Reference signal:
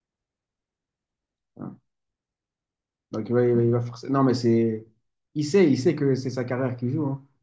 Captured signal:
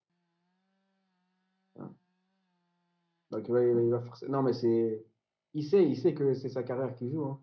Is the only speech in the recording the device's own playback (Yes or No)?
Yes